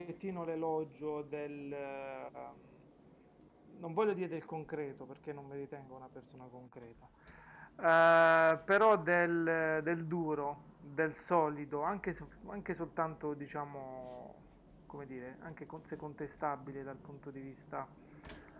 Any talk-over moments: No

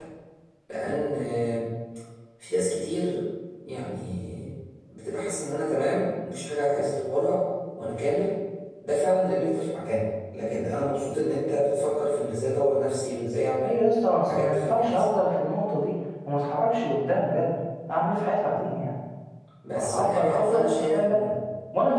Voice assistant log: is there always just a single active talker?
No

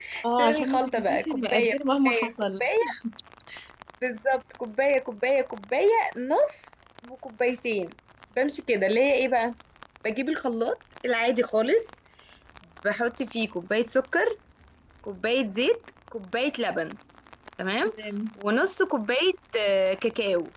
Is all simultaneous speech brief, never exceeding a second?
No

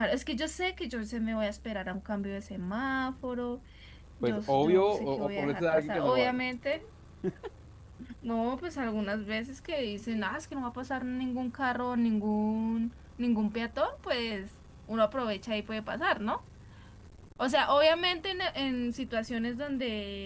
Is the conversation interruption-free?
No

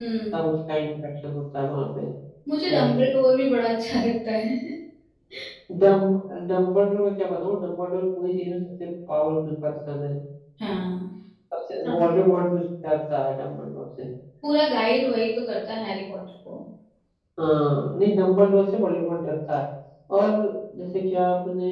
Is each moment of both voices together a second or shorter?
Yes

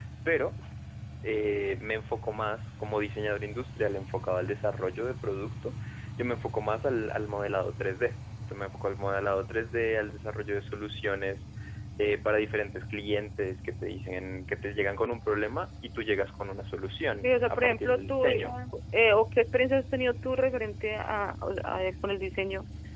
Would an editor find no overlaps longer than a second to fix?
No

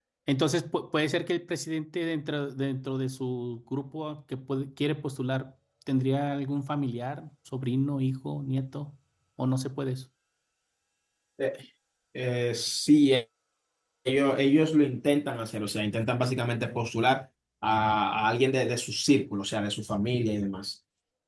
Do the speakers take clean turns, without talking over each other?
Yes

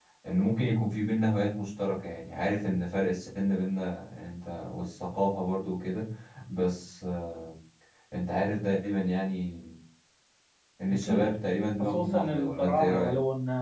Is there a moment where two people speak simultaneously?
Yes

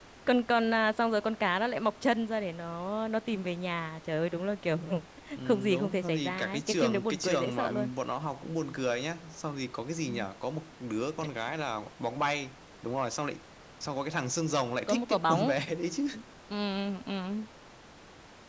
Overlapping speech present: Yes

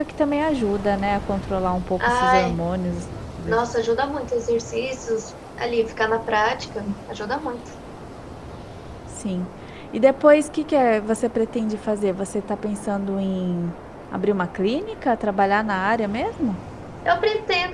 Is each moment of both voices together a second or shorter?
Yes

